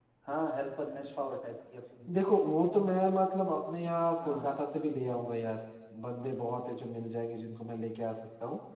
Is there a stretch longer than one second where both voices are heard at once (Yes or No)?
No